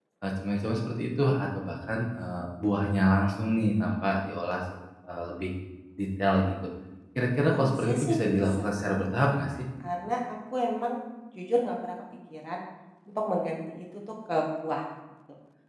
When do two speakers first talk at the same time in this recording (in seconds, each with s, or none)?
7.5 s